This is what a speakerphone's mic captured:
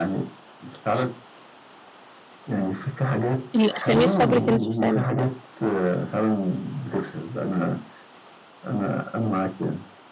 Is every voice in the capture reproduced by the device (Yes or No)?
No